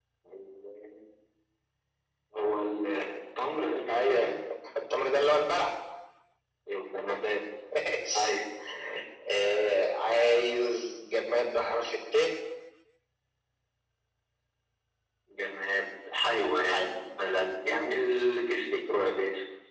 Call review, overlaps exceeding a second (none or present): none